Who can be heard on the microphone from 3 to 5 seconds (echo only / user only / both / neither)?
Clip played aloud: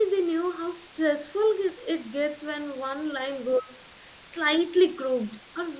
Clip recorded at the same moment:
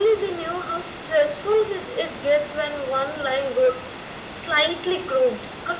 echo only